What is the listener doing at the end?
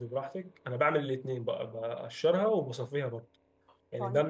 listening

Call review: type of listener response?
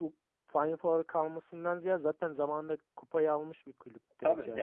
taking over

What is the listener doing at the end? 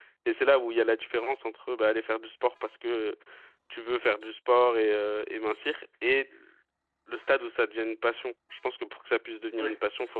listening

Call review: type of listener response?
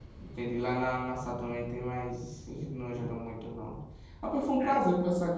listening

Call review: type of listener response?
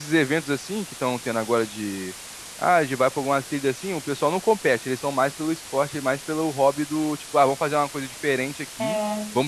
listening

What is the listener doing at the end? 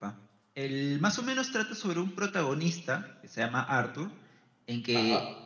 listening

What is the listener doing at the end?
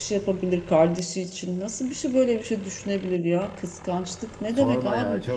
taking over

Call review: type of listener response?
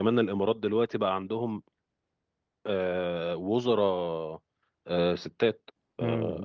taking over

